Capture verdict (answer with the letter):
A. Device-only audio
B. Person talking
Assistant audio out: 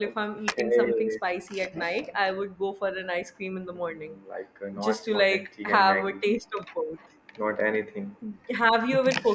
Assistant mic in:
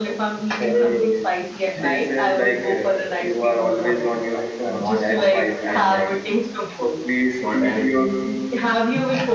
B